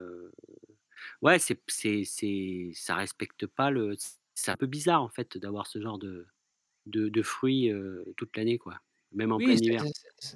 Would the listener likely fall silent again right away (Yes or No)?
No